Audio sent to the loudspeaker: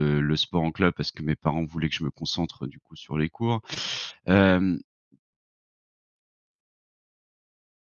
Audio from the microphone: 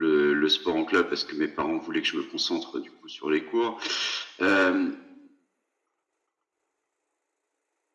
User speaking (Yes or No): No